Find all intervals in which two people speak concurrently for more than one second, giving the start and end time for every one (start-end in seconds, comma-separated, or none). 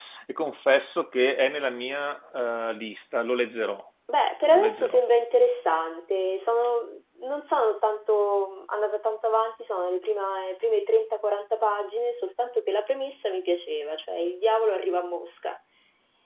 none